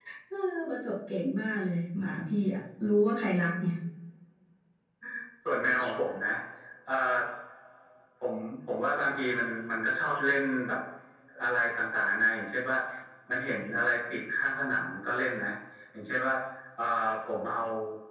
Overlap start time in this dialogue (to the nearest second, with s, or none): none